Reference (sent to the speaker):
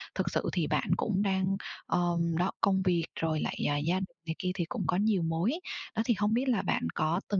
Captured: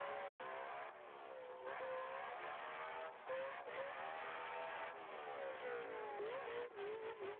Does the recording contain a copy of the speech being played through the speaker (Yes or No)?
No